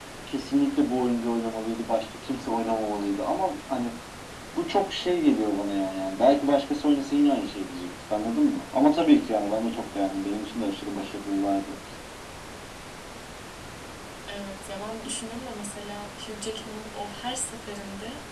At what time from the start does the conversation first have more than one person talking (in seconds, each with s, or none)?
none